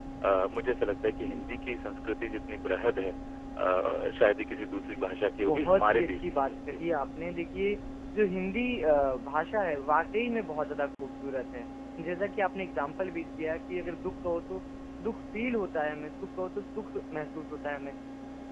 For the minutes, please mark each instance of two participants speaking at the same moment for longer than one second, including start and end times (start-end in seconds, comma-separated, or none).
5.5-6.8